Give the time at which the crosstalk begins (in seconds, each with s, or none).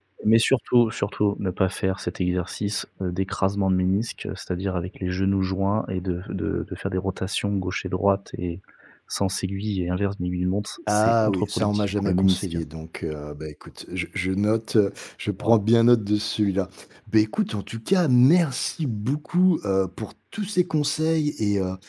10.9 s